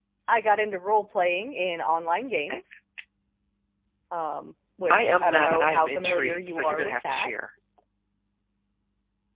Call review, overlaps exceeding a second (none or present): present